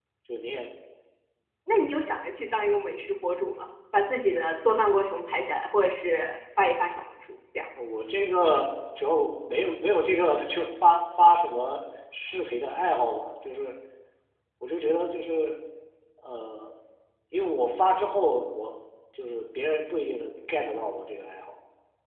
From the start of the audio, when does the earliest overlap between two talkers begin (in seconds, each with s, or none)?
none